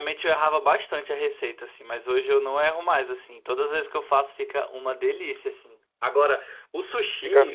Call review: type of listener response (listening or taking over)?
listening